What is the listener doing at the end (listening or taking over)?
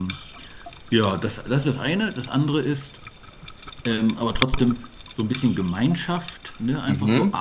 listening